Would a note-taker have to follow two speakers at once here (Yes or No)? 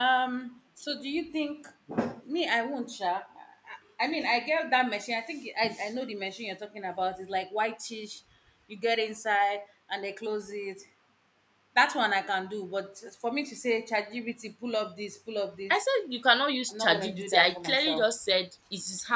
Yes